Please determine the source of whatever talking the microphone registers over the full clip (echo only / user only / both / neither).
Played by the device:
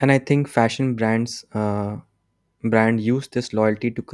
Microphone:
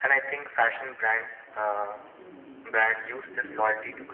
both